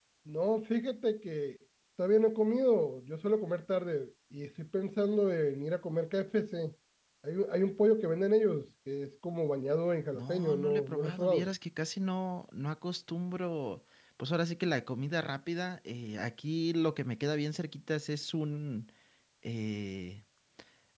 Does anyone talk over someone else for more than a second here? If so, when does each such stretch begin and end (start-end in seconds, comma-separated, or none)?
10.1-11.5